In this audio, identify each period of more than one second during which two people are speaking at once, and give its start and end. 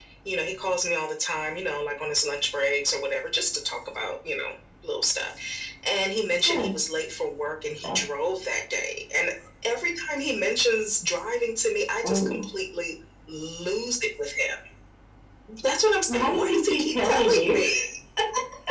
16.1-17.6

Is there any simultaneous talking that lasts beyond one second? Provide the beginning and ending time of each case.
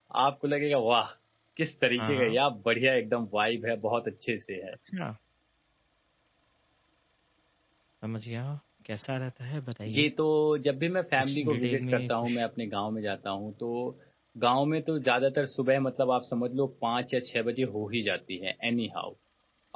11.2-12.4

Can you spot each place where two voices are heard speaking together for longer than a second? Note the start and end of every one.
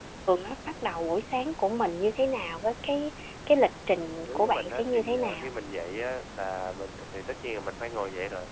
4.2-5.5

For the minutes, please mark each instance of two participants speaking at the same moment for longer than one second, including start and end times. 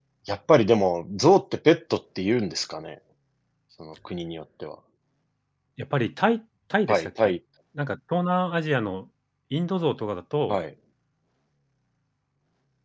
none

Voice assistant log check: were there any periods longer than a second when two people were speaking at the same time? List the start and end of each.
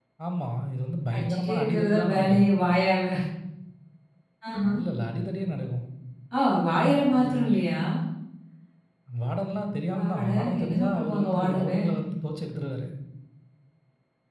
1.1-2.5, 9.9-11.8

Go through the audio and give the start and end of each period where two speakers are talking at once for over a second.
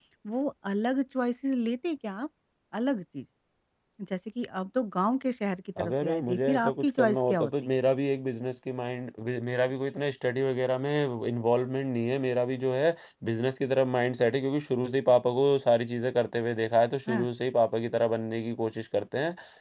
5.8-7.5

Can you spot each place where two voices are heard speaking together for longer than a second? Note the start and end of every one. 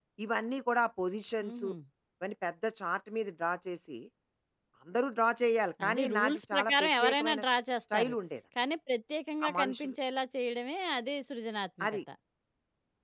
5.8-7.4

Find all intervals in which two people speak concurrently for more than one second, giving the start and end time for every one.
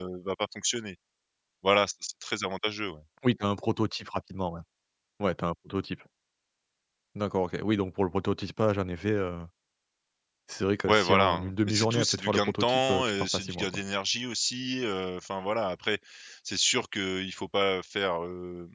10.9-13.7

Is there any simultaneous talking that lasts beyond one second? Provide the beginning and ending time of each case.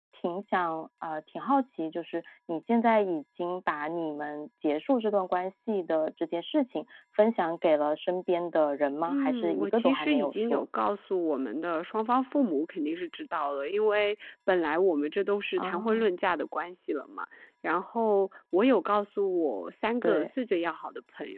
9.1-10.6

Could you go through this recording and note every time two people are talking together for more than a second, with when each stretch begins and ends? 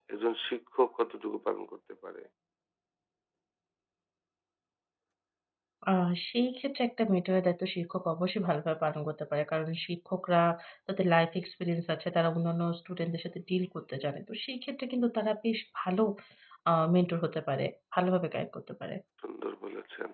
none

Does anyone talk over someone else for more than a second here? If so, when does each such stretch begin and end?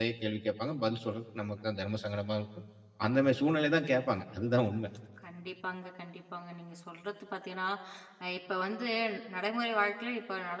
none

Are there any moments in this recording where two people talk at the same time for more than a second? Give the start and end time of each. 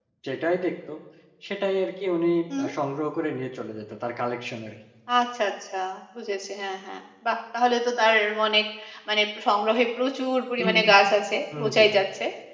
none

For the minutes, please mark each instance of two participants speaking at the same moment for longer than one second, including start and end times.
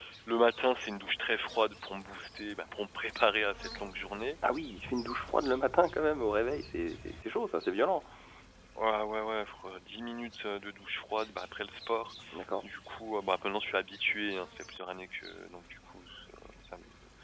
none

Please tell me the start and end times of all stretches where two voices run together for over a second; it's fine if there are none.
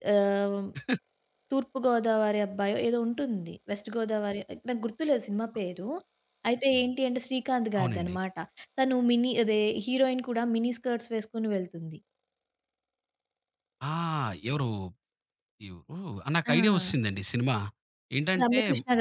none

